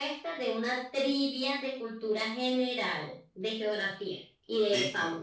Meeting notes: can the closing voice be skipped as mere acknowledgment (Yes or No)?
No